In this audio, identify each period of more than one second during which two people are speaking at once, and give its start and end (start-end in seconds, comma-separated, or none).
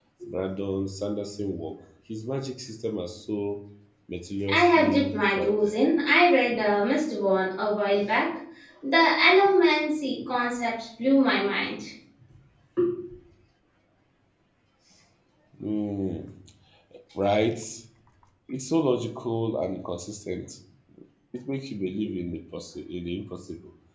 4.5-5.8